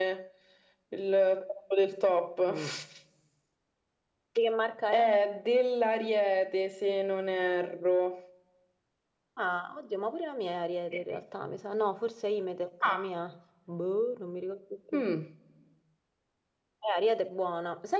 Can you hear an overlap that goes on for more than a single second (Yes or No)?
No